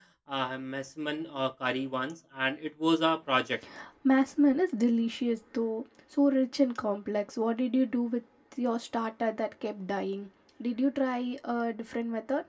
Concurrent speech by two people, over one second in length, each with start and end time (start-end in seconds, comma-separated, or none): none